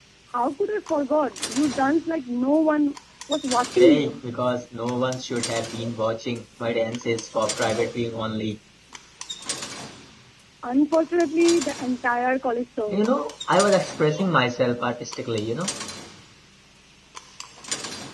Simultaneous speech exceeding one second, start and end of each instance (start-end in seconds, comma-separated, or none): none